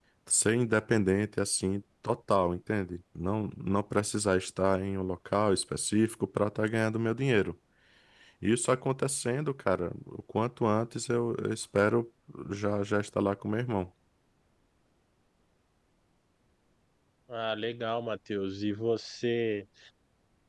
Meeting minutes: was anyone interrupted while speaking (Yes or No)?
No